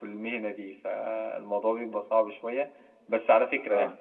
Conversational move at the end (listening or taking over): listening